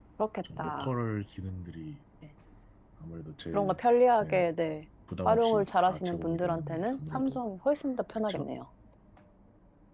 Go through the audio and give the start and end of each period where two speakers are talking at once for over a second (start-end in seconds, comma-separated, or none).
5.2-7.4